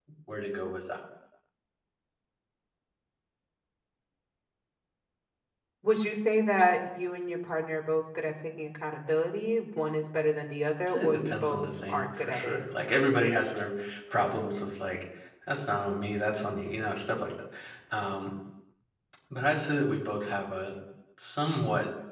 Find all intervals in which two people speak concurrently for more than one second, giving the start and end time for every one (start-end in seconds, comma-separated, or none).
10.9-12.6